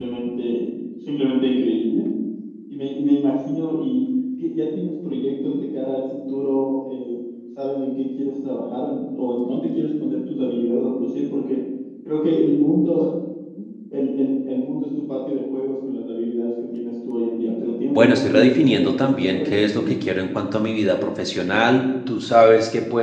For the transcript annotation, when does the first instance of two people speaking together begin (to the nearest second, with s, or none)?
18 s